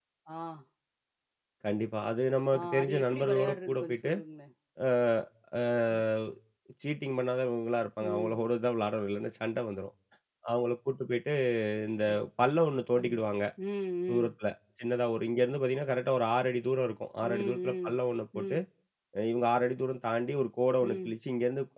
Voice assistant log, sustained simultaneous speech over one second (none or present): present